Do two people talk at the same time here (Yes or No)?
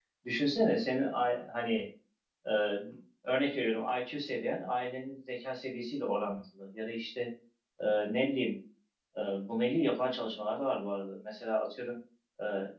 No